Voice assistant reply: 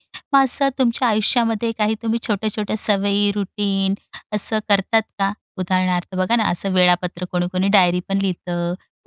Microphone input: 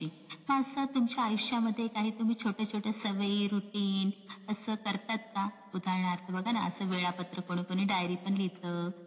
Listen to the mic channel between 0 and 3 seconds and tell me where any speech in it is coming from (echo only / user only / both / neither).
echo only